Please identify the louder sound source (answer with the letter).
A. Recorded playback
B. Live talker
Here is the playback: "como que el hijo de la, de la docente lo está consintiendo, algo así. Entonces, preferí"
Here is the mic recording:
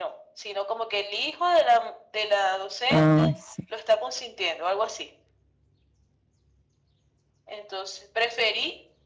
B